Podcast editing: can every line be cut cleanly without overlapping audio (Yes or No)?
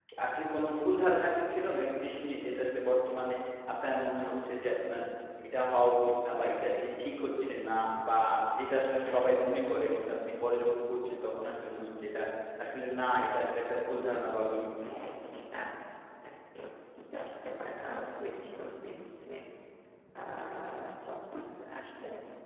Yes